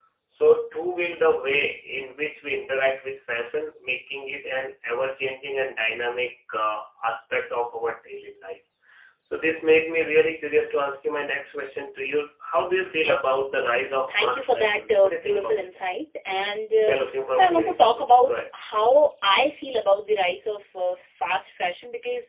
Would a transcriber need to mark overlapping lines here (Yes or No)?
Yes